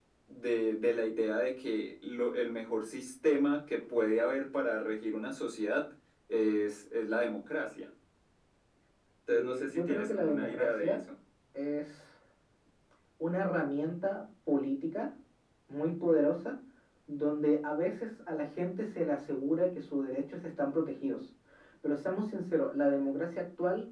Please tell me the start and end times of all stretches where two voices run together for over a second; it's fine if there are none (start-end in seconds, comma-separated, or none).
9.3-11.0